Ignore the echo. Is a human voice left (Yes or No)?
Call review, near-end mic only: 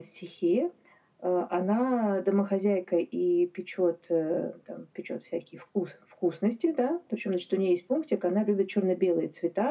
No